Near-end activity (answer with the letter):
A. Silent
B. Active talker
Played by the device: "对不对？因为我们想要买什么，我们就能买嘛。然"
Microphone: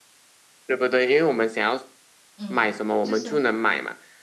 B